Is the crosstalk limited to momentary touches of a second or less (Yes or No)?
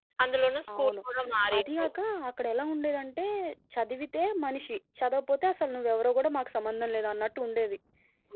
Yes